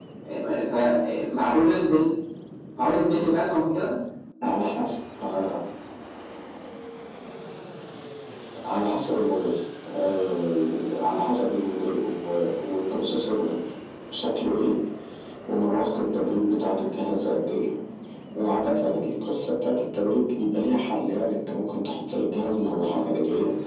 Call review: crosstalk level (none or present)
none